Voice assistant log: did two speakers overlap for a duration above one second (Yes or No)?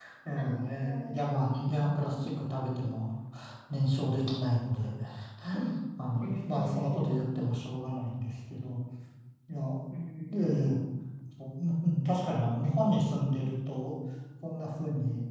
Yes